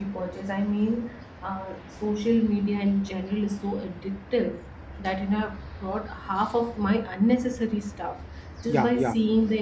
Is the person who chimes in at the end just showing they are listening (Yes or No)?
Yes